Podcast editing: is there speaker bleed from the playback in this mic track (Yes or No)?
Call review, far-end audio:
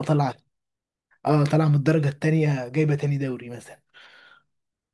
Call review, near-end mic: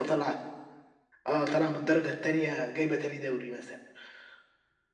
Yes